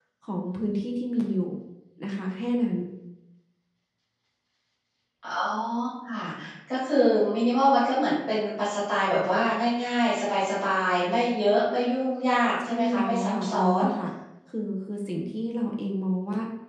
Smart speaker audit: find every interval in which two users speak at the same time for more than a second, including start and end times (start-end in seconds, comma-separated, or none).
12.6-13.8